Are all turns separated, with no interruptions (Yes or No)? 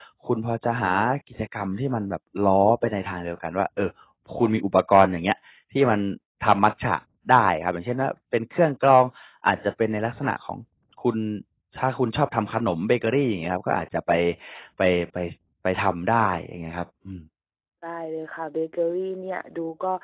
Yes